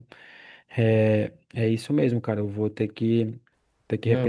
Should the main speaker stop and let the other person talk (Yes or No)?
Yes